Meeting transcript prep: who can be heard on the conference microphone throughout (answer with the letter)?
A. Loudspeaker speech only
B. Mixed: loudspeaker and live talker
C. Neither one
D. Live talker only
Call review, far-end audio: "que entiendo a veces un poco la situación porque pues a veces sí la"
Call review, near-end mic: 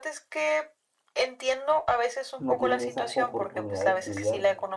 B